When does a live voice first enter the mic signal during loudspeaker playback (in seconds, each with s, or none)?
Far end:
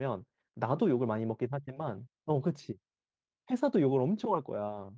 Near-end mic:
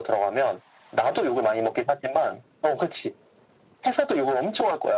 none